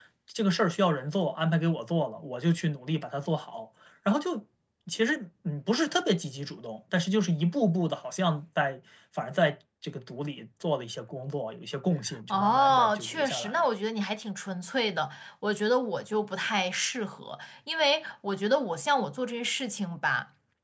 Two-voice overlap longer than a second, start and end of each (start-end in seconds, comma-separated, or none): 12.3-13.6